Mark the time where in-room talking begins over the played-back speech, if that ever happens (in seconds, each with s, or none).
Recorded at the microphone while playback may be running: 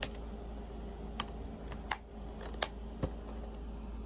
none